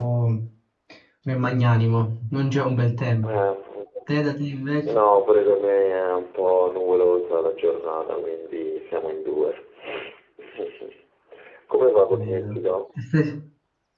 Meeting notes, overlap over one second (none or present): none